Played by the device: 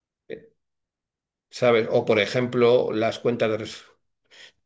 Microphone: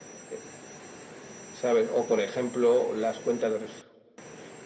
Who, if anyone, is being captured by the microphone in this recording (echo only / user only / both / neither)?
echo only